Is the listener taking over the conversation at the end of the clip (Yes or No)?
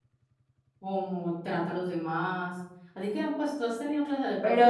Yes